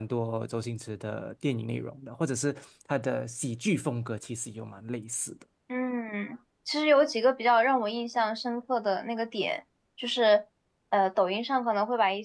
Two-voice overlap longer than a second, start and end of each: none

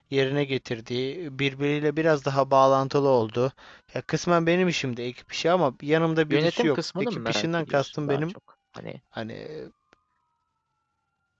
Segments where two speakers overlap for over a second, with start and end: 6.3-8.3

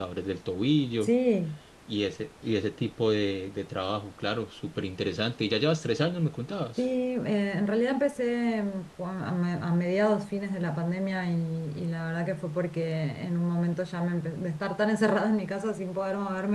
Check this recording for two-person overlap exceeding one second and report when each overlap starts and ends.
none

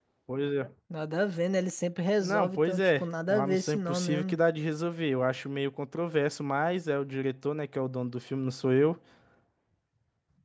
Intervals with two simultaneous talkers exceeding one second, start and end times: 2.2-4.4

